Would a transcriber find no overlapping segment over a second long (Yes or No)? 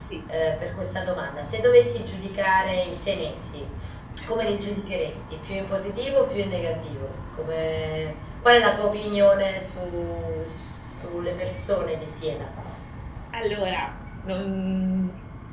Yes